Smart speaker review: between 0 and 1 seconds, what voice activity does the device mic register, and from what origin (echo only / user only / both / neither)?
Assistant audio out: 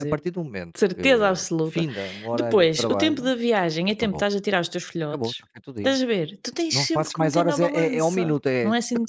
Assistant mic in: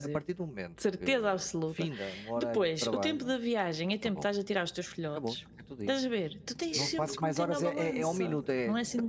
echo only